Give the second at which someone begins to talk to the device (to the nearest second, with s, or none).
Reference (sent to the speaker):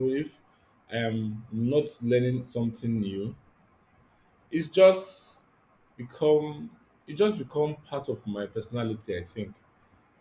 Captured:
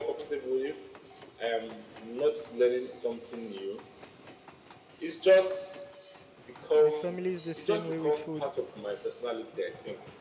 7 s